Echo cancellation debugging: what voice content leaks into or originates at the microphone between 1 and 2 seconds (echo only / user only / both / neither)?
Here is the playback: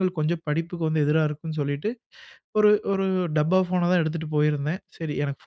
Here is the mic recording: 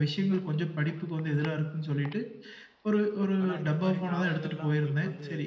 echo only